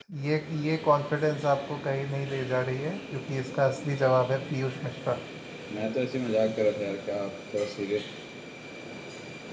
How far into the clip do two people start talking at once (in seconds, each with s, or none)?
none